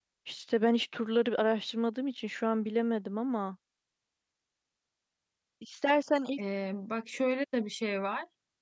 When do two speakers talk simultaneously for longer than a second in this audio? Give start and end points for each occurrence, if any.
none

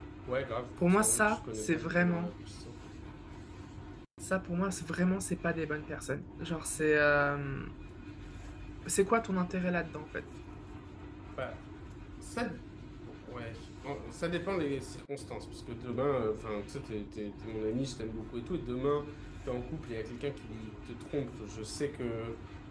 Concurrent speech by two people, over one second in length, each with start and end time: 0.8-2.3

